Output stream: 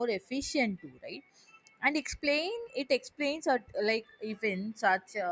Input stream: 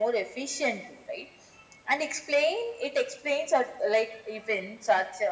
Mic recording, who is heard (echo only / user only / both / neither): echo only